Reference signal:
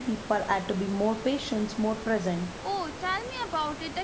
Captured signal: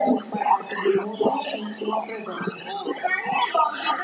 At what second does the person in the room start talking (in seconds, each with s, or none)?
none